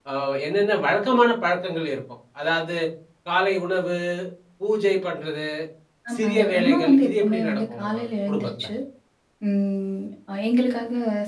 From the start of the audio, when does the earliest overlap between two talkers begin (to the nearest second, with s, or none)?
6 s